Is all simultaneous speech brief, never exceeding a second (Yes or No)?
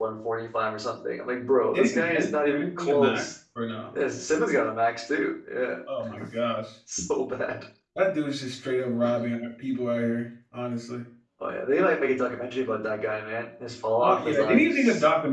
No